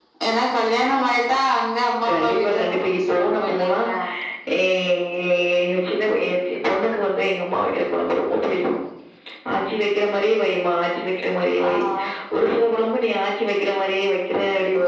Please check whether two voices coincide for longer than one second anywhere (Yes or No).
Yes